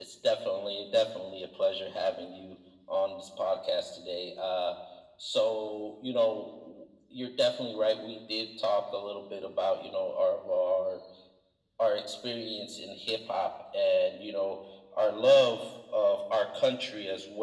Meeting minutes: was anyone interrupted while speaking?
No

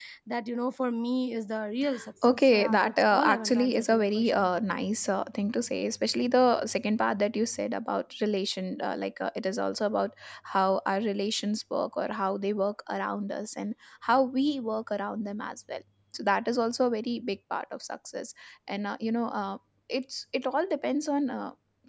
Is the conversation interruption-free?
No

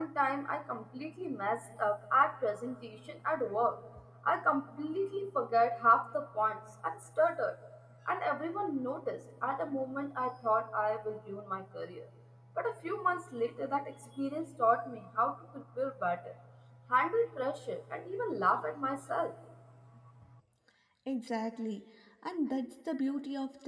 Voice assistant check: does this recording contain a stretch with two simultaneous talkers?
No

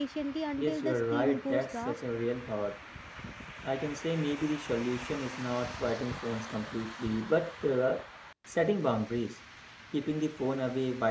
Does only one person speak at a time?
No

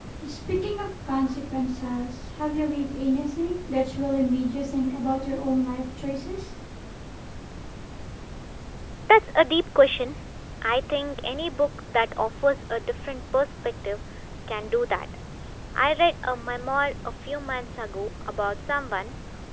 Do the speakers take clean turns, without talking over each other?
Yes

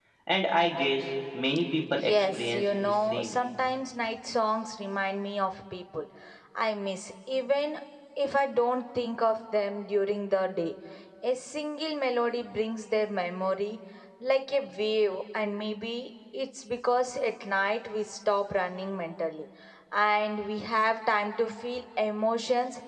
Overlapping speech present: Yes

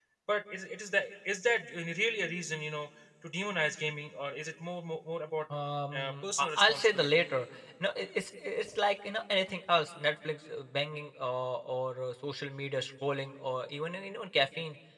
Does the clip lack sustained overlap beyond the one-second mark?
No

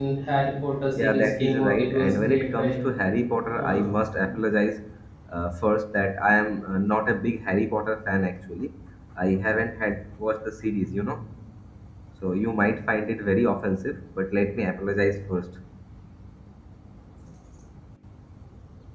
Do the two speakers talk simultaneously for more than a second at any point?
Yes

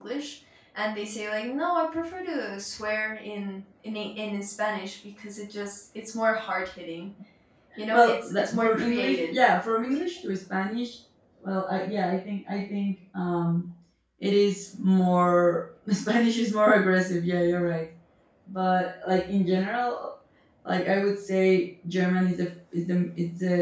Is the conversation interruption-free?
No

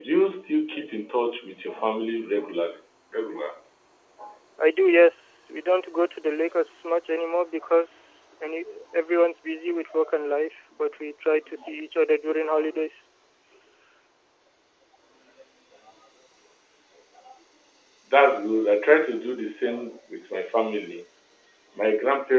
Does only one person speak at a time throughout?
Yes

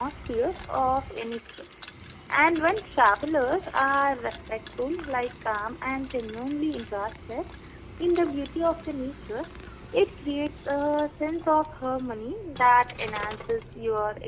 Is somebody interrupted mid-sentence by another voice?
No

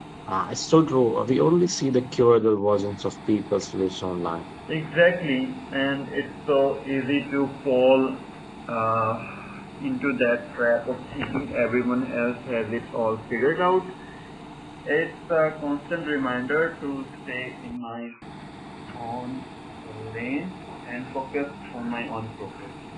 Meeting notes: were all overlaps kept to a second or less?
Yes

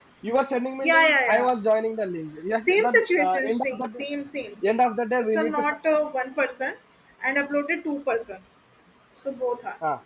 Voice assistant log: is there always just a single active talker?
No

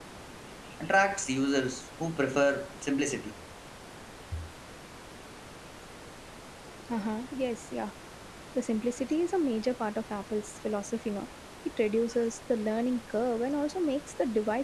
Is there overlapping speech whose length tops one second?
No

